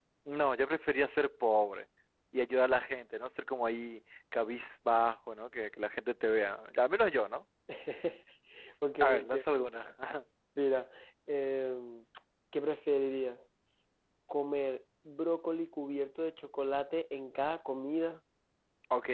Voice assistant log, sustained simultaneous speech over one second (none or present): none